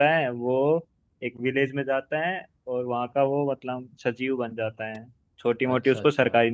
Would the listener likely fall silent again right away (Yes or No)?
Yes